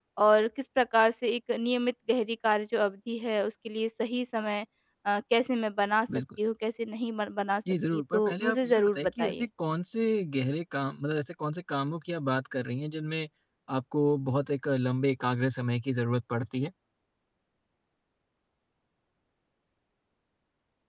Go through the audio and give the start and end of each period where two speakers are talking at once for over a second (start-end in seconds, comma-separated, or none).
7.9-9.4